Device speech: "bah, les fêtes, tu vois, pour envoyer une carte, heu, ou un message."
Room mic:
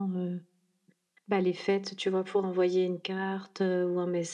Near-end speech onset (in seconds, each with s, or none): none